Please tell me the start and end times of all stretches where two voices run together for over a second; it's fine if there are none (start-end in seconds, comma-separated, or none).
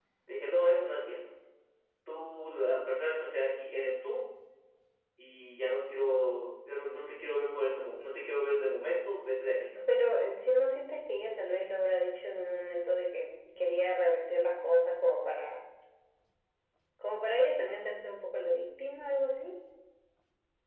none